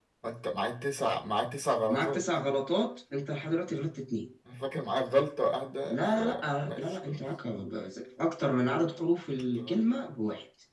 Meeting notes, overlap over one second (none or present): present